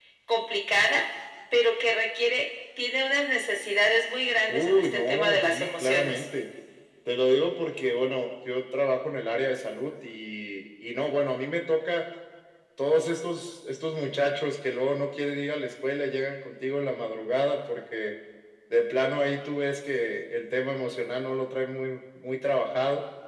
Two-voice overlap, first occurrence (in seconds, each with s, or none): 4.5 s